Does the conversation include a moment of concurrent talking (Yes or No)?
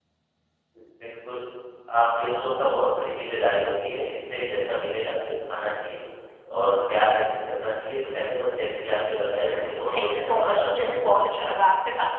Yes